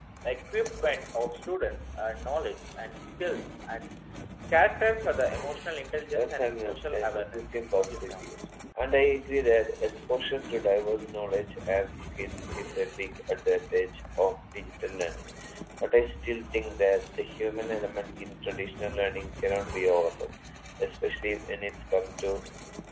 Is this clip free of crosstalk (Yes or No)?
No